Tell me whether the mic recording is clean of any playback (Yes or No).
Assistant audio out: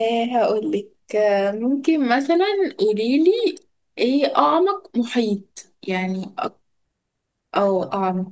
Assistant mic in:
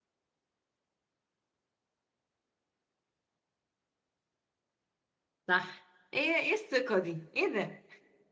Yes